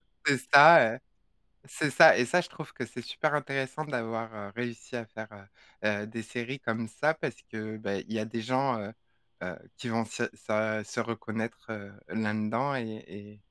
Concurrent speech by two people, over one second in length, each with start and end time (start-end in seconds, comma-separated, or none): none